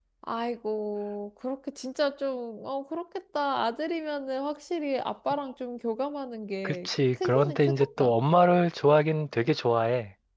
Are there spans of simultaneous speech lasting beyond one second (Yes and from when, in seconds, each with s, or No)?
Yes, from 6.6 s